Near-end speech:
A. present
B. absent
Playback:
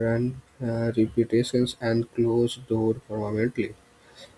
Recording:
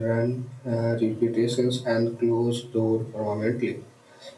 B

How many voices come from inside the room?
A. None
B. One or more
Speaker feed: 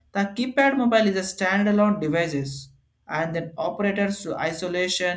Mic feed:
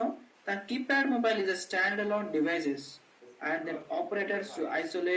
B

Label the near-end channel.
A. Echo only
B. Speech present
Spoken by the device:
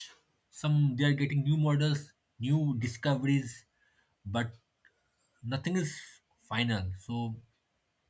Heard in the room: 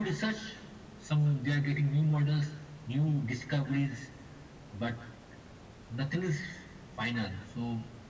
A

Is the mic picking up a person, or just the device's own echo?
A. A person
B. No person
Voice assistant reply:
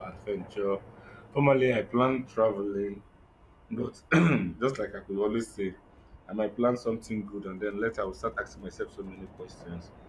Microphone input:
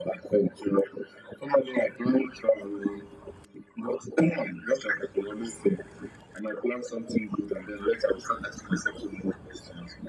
B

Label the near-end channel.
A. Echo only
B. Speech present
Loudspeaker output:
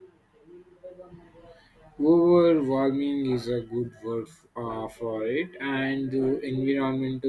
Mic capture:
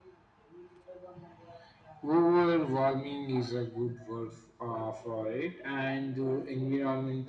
A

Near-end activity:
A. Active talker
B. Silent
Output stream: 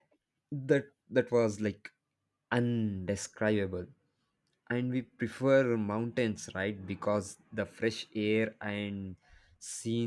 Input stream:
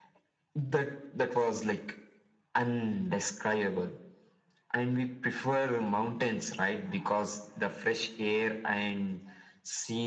B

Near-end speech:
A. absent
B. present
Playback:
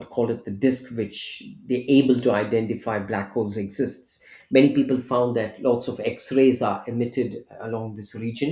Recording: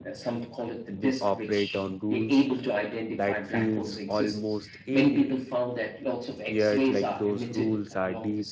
B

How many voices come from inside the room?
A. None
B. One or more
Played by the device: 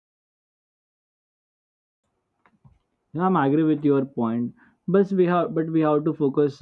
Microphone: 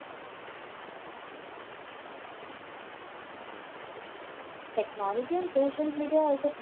B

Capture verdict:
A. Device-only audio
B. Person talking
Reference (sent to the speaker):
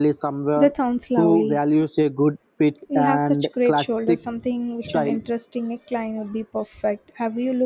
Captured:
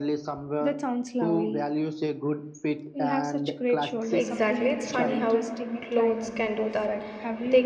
B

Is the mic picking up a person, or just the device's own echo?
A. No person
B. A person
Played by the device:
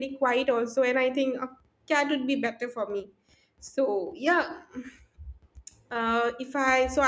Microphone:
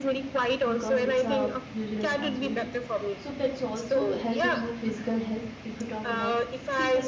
B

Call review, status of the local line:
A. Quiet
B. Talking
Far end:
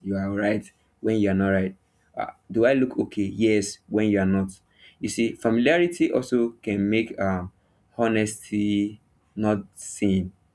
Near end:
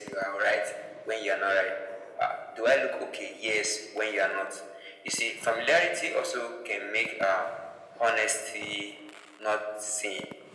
A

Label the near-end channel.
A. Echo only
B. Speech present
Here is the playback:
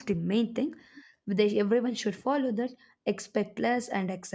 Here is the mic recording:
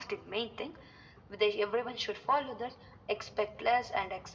A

